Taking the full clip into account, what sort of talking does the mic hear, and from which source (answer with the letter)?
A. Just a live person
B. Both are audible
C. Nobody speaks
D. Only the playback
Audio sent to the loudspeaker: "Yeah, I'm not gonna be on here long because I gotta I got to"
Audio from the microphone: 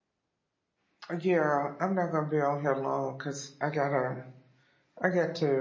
D